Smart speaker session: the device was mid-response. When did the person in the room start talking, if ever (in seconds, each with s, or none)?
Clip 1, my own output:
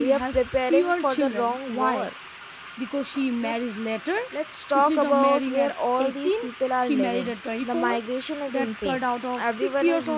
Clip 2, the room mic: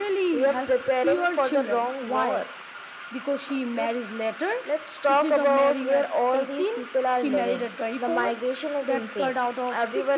none